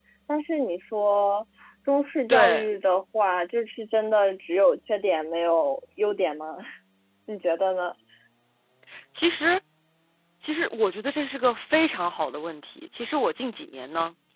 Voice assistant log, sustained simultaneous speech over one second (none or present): none